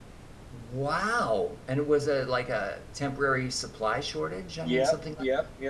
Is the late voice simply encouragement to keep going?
No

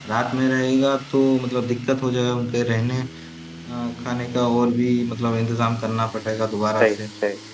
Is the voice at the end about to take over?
Yes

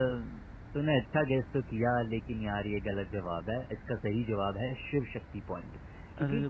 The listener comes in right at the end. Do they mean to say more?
No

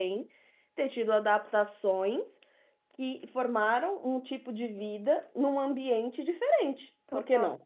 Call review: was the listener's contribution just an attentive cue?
No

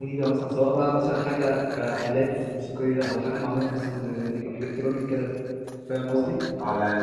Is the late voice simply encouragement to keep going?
No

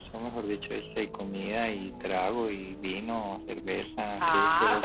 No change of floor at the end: No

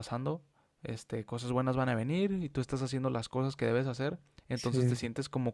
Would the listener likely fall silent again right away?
Yes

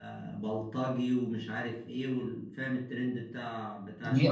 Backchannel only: No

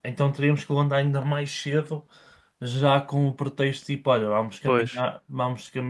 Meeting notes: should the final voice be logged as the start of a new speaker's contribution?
No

